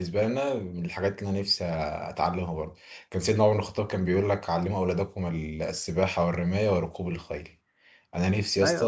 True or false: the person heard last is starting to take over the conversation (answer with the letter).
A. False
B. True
B